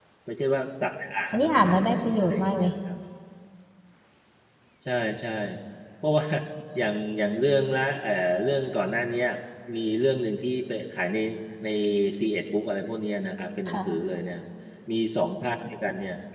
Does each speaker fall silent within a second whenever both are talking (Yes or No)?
No